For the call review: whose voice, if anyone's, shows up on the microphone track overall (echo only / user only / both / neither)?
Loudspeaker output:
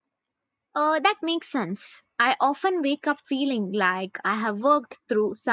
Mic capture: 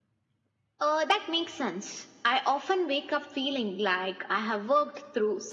echo only